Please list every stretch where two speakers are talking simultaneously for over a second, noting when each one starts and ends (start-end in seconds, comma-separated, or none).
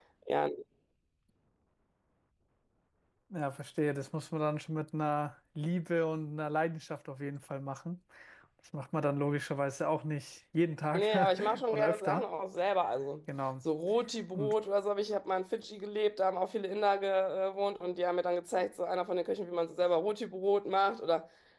10.9-12.2